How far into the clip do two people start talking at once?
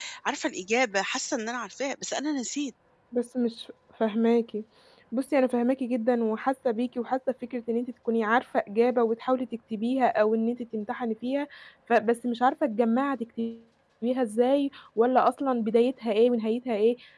none

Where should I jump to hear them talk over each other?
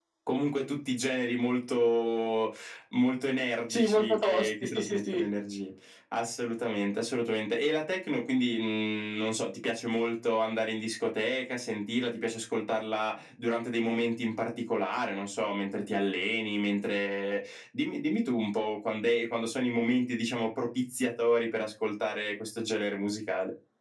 3.7 s

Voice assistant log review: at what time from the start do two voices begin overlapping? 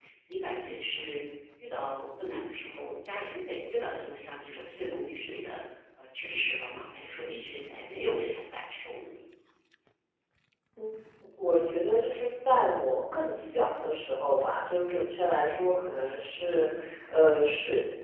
none

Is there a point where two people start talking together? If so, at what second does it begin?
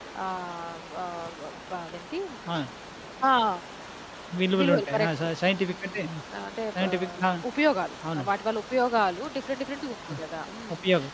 4.6 s

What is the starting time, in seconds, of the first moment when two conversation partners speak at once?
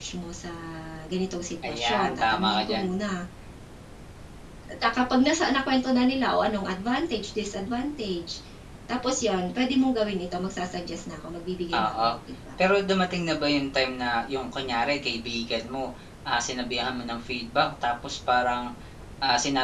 1.6 s

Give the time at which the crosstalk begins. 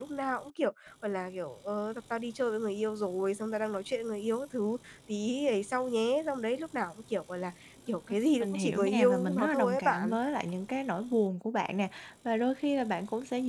7.9 s

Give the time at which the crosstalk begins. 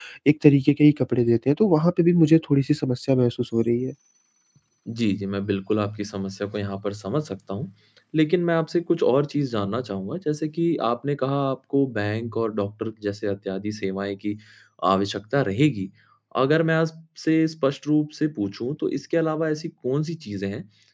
none

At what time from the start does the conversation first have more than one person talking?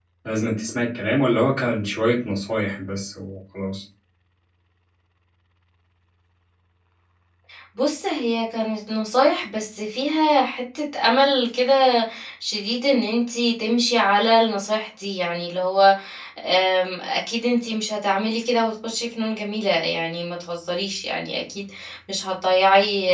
none

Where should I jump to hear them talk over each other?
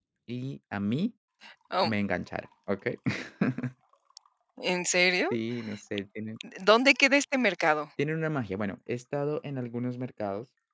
none

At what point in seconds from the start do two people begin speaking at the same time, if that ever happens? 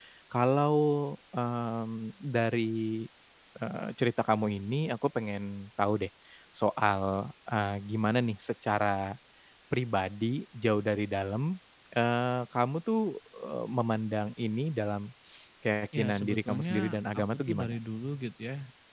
16.0 s

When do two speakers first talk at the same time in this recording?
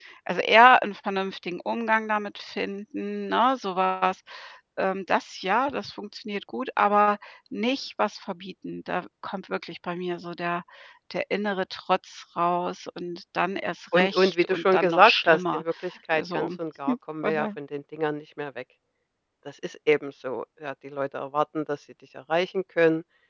13.9 s

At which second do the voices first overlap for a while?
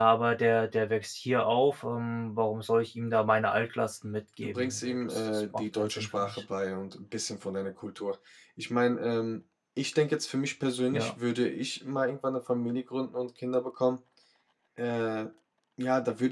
4.4 s

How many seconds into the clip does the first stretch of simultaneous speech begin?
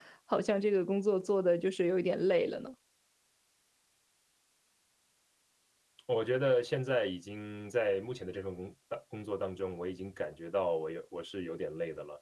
none

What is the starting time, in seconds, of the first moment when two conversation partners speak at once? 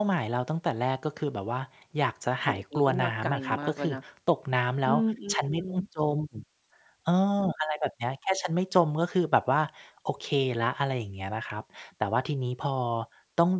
2.4 s

